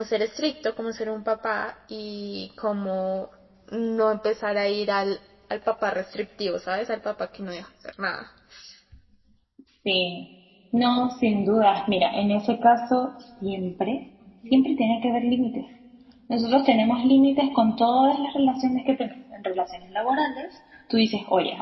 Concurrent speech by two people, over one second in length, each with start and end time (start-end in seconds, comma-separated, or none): none